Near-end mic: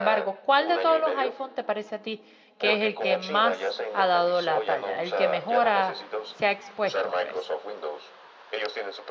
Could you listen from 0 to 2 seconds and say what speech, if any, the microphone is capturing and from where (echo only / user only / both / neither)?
both